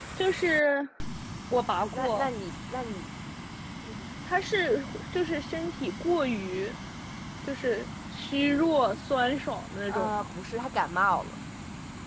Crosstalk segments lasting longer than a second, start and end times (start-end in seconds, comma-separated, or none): none